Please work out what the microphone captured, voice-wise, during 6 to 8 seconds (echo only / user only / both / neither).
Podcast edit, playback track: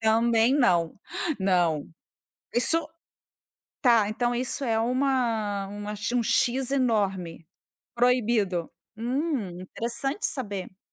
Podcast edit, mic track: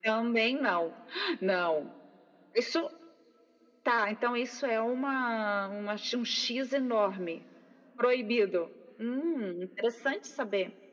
echo only